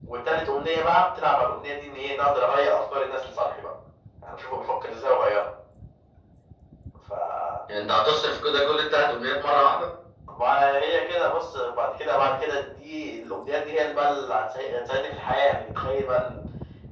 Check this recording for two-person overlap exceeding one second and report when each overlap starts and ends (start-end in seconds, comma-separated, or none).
none